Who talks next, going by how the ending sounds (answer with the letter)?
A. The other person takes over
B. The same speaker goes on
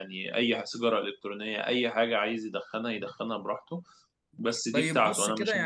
A